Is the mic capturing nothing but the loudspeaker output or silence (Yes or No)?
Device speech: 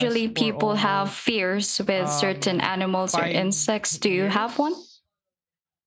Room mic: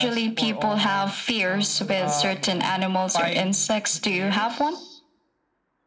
No